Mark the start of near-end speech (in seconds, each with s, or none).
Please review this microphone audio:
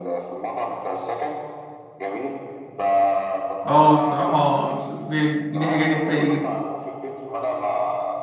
3.7 s